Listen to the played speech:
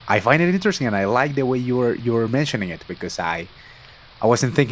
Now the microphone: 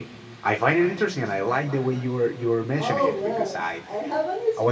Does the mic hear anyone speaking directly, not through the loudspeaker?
Yes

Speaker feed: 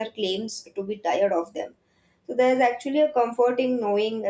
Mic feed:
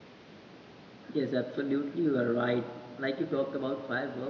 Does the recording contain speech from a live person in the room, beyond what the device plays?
Yes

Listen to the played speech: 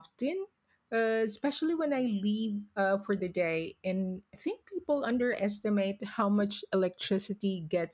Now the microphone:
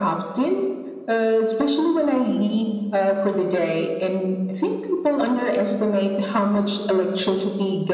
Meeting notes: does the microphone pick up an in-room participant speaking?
No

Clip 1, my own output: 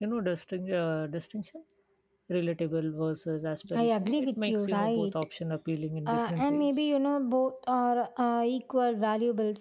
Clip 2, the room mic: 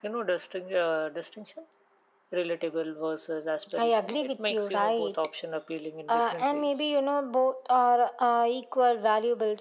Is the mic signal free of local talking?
Yes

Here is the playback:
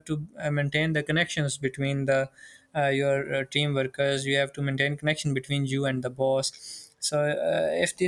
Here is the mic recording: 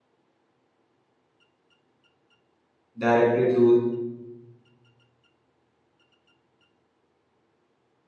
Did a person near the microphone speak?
Yes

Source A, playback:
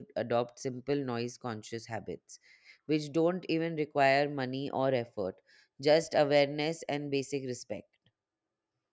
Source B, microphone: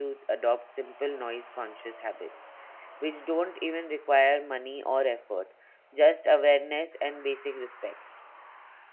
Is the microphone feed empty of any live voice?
Yes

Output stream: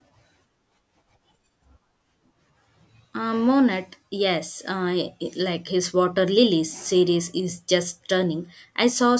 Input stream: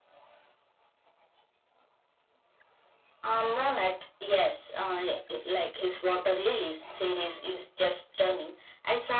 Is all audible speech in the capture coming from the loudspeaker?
Yes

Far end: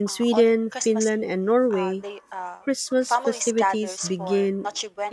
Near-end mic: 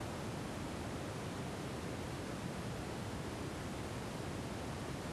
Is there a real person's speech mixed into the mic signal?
No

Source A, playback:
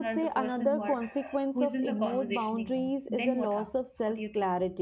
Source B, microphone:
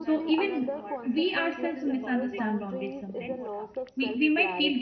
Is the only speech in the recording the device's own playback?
No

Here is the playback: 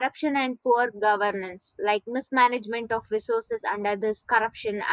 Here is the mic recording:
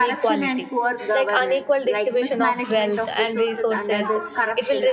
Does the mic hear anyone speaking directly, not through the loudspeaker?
Yes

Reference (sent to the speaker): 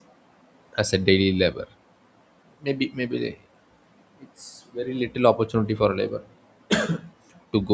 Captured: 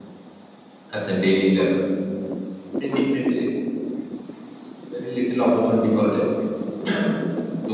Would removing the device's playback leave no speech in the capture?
Yes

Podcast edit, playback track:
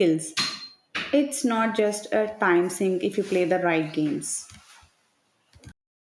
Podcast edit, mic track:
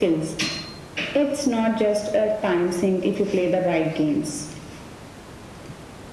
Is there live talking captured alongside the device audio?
No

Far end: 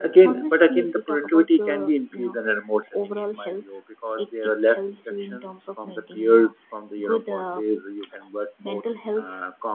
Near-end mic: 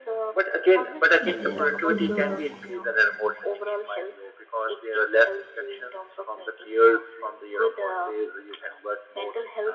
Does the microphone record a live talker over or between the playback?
Yes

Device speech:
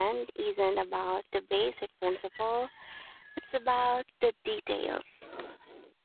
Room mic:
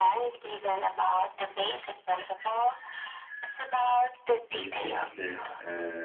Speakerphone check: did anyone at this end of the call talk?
Yes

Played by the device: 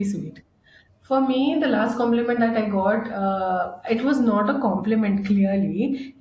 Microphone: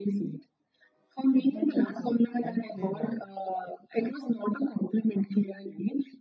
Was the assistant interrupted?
Yes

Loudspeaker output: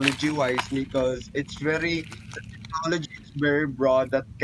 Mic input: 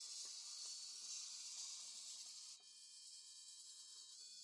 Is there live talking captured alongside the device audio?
No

